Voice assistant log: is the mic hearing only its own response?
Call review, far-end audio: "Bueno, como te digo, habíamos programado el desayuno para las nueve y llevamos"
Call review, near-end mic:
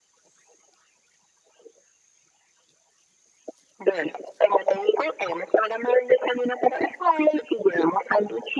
Yes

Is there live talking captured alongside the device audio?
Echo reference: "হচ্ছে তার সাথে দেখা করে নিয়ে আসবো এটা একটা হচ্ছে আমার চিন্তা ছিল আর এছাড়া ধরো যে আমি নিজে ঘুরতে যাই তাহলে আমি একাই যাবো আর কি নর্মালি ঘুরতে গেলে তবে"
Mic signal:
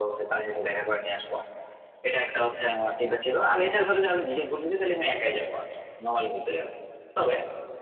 No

